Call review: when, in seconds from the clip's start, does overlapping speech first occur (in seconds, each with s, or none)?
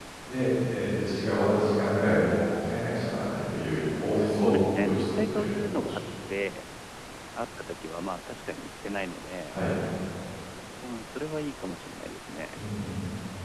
4.2 s